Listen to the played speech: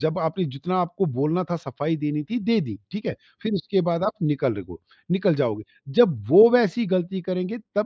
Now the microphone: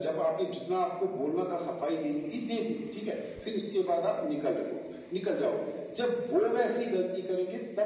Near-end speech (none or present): none